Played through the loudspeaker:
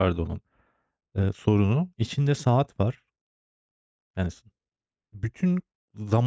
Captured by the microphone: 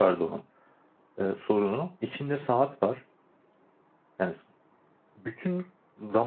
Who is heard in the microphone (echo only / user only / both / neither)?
echo only